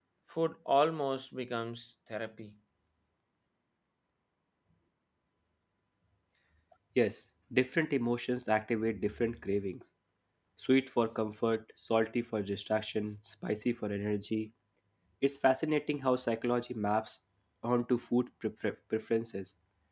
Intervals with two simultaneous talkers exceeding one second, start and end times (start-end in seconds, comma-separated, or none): none